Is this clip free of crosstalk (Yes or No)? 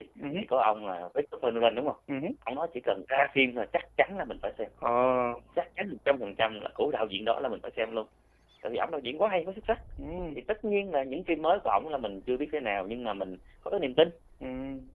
Yes